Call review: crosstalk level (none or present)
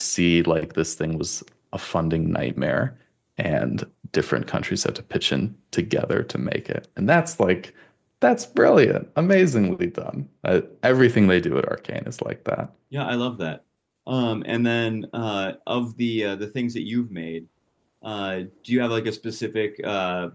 none